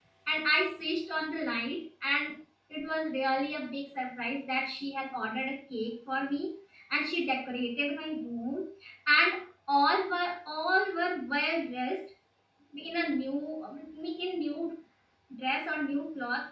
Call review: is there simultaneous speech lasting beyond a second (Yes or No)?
No